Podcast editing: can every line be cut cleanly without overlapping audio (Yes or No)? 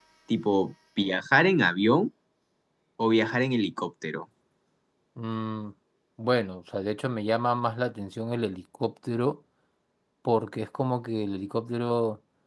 Yes